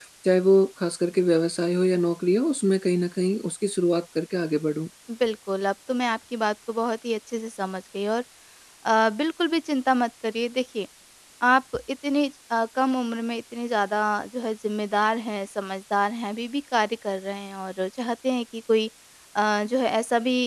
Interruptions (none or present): none